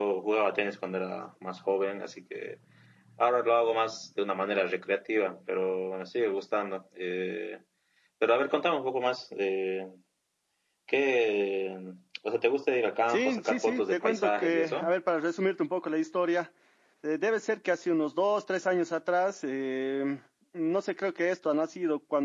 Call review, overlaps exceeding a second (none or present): present